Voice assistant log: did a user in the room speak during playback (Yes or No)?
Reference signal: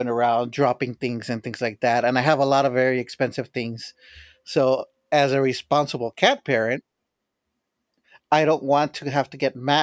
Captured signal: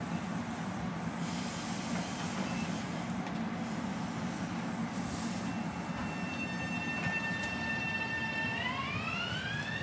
No